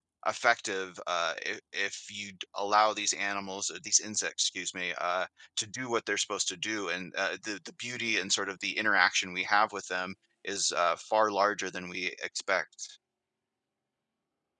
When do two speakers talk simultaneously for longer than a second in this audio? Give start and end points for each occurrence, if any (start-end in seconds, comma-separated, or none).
none